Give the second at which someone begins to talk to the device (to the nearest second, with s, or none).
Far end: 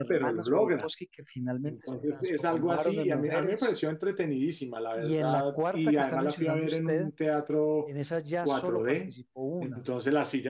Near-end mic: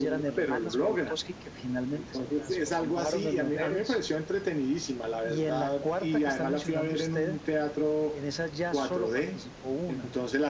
none